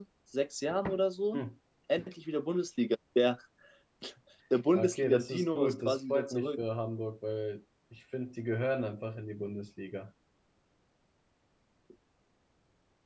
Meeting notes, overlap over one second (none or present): present